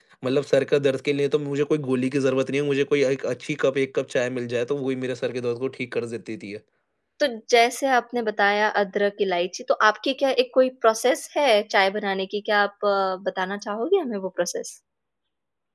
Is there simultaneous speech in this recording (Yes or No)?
No